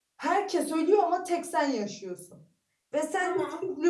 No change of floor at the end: Yes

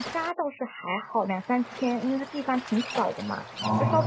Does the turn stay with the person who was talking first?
Yes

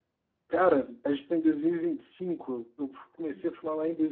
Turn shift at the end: No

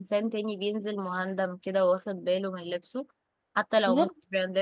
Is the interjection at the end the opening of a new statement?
No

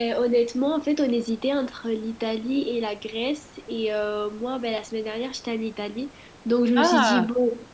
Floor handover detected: No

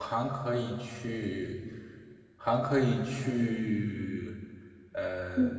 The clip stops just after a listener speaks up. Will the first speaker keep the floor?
No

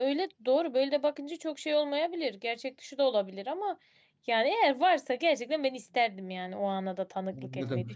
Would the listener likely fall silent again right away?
No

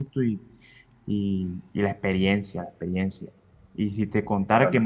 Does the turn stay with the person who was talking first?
Yes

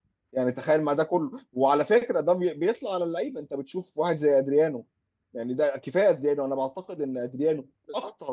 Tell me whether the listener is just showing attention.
Yes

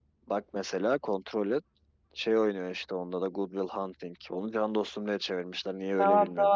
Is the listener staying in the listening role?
No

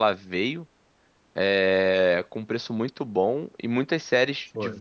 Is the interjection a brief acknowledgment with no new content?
Yes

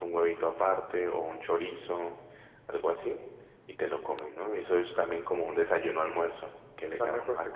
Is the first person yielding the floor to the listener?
Yes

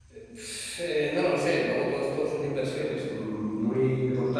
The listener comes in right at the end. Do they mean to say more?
No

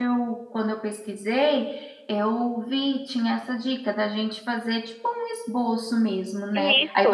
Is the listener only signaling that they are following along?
Yes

